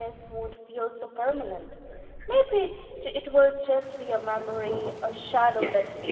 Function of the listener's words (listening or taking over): taking over